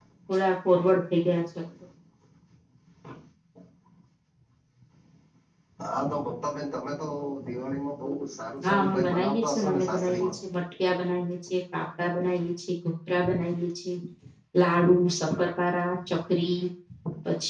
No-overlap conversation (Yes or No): No